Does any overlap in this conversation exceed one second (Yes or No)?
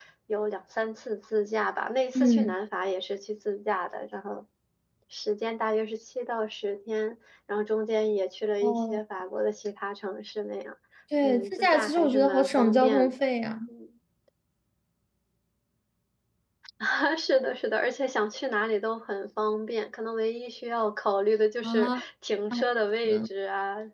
Yes